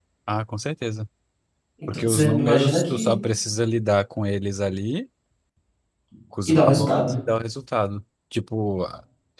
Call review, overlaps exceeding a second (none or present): present